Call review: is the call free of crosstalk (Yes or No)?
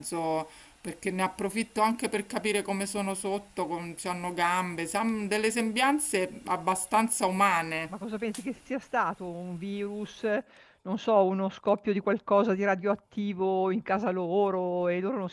Yes